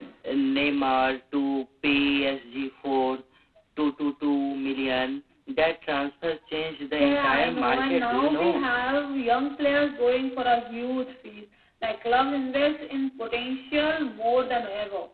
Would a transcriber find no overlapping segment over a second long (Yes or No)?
No